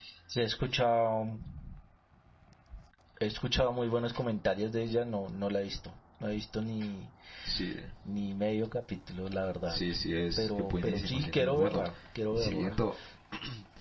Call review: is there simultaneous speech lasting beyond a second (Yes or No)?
Yes